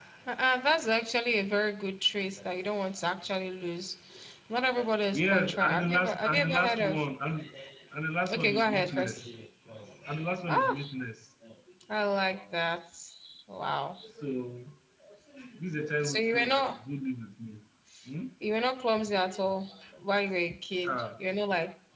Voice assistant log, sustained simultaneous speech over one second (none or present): present